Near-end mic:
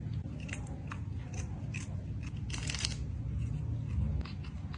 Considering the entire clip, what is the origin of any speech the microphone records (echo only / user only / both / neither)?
neither